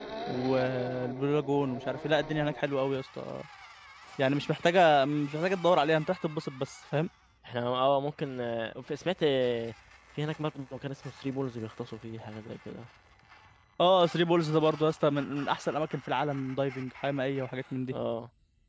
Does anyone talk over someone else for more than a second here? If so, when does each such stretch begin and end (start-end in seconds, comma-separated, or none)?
none